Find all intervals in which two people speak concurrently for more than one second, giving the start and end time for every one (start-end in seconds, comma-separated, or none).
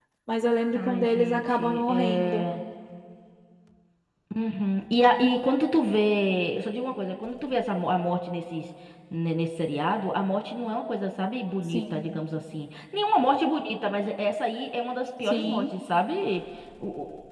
0.8-2.5